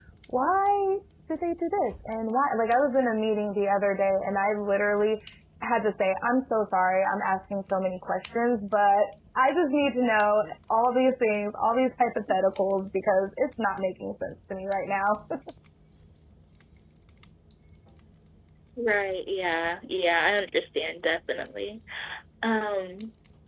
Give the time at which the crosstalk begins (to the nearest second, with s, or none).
none